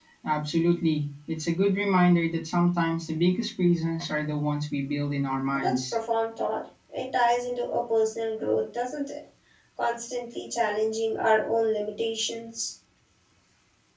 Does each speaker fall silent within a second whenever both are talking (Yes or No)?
Yes